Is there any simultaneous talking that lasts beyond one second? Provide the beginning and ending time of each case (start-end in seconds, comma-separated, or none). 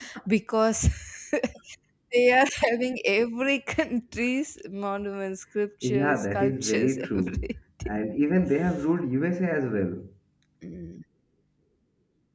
5.8-7.5